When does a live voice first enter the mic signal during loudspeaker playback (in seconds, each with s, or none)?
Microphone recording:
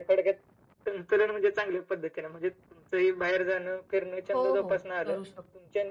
4.3 s